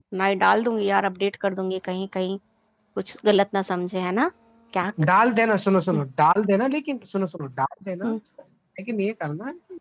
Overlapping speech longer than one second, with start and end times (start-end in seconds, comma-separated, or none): none